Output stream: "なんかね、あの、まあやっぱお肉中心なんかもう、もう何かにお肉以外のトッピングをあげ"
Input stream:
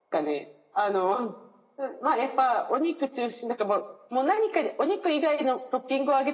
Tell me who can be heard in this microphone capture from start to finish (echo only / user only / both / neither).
echo only